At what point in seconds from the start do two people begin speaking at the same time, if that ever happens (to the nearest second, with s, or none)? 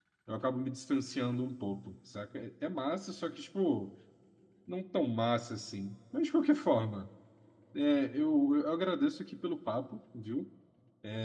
none